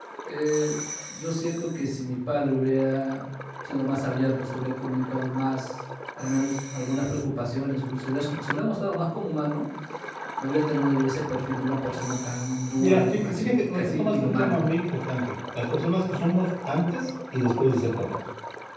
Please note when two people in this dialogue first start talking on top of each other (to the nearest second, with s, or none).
13 s